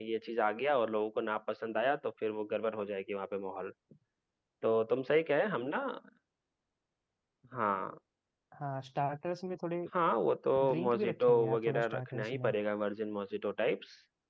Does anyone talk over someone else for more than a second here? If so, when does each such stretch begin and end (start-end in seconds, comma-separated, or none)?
10.7-12.5